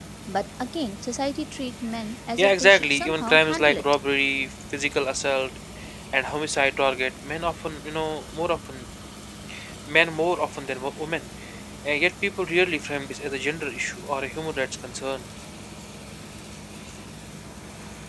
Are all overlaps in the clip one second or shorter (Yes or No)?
No